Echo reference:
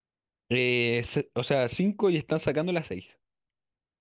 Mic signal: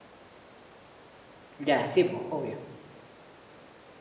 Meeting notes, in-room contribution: present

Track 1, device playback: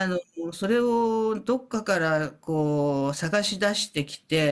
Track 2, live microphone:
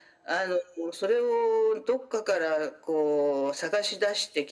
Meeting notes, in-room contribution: none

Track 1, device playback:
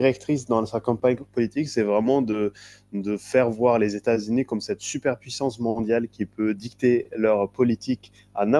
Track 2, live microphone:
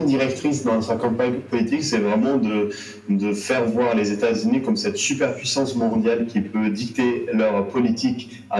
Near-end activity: none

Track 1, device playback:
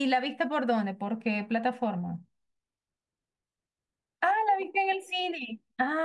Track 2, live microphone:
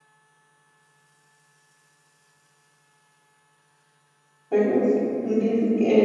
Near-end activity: present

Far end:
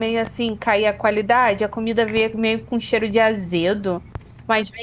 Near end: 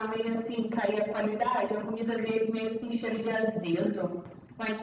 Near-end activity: none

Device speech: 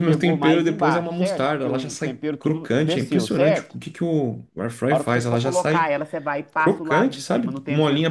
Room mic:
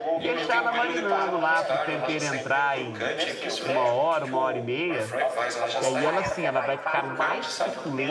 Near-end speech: present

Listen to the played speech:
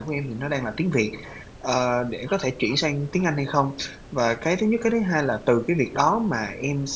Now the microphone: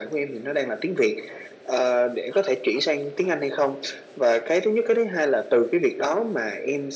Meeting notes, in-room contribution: none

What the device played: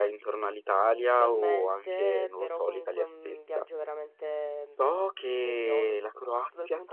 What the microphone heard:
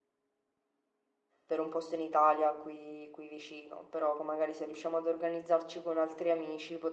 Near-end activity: present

